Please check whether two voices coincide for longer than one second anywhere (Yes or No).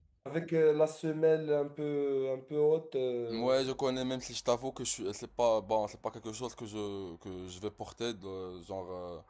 No